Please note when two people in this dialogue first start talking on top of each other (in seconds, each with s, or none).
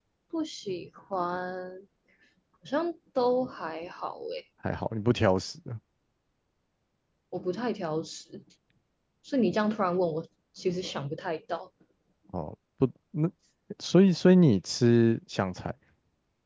none